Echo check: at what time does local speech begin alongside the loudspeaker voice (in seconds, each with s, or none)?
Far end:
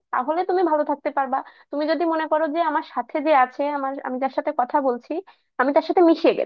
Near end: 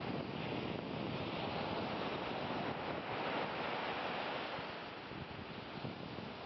none